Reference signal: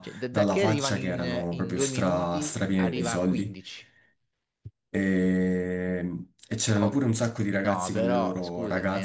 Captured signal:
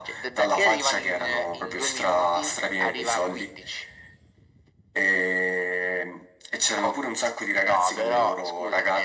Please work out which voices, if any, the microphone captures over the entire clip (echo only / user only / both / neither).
echo only